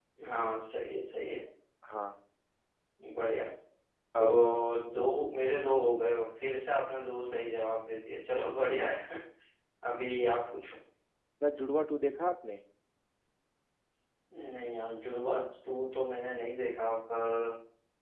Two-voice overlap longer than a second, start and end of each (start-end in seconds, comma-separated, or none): none